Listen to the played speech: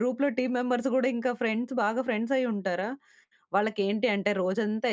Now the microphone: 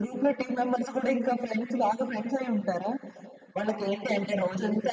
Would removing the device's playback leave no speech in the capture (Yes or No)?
Yes